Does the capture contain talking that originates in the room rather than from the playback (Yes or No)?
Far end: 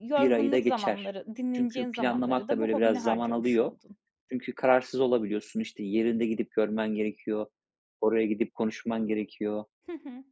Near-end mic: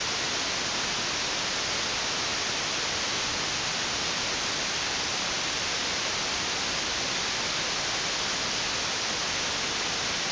No